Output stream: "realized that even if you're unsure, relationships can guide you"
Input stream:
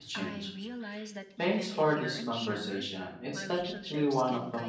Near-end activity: present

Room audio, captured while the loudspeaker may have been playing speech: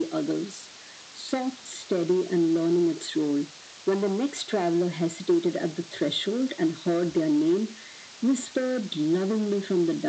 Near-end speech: none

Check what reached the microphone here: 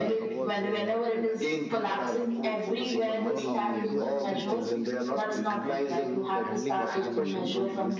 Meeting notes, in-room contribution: present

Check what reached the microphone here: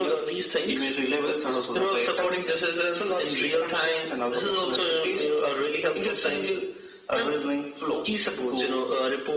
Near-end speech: none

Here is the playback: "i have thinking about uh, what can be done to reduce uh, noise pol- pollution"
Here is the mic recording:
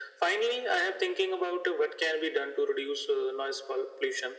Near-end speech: none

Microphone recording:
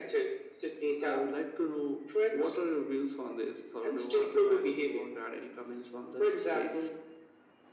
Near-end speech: none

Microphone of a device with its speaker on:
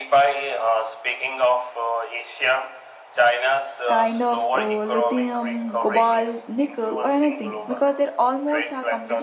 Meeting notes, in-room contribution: present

